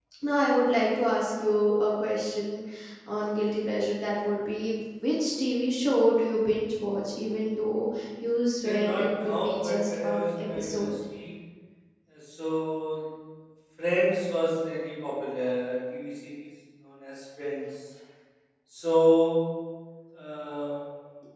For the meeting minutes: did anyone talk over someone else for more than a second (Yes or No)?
Yes